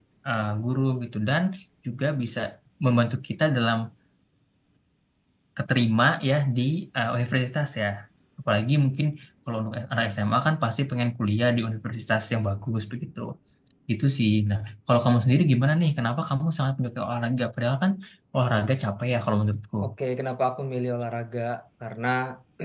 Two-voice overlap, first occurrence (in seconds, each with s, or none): none